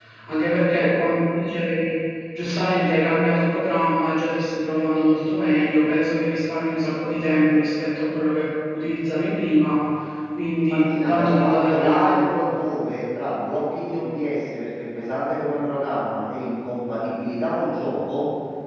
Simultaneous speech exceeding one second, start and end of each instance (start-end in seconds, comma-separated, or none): 10.7-12.3